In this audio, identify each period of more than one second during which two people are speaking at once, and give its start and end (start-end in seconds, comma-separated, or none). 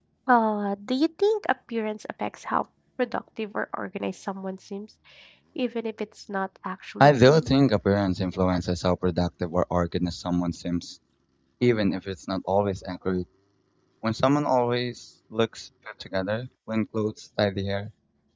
none